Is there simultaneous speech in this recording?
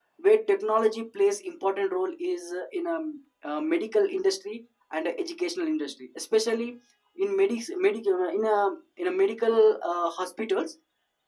No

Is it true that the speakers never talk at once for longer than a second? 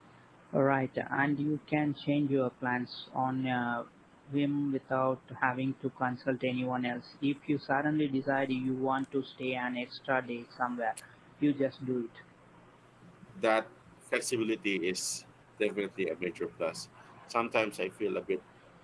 Yes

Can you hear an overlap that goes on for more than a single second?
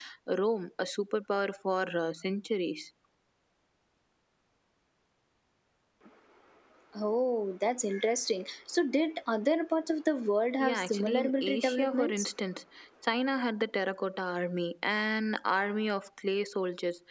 Yes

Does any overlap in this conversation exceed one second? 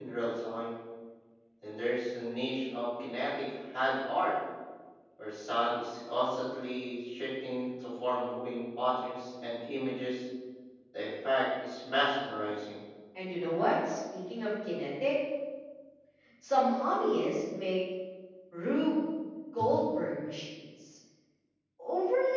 No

